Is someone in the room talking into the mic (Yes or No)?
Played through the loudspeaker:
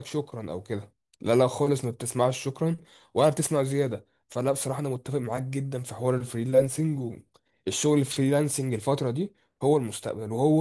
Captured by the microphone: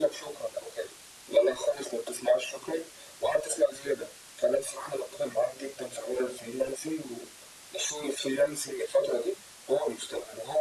No